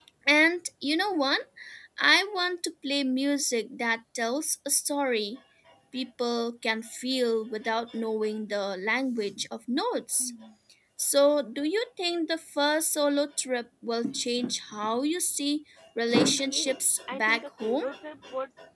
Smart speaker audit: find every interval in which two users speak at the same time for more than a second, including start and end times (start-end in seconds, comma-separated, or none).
16.3-17.9